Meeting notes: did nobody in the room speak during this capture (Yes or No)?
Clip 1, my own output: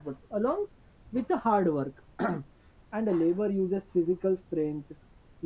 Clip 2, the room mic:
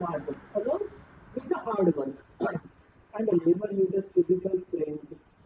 Yes